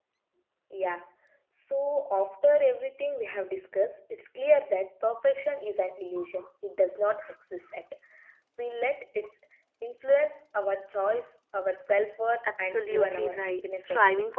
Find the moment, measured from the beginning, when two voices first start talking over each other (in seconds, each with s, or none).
12.4 s